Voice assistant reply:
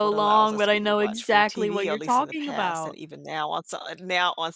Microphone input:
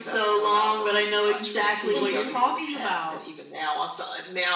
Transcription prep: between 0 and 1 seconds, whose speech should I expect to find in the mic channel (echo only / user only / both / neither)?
echo only